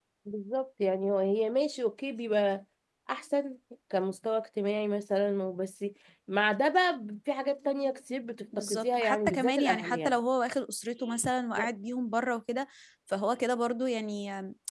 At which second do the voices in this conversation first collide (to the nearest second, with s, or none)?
9 s